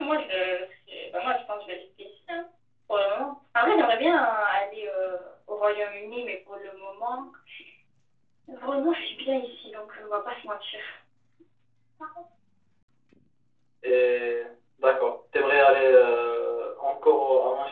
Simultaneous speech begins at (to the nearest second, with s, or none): none